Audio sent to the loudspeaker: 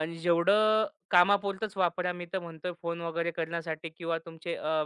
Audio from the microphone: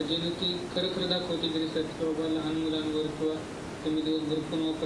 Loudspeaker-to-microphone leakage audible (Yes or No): No